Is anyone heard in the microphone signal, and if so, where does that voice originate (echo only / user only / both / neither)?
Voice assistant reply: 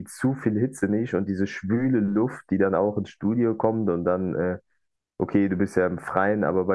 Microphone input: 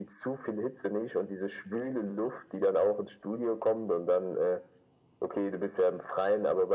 echo only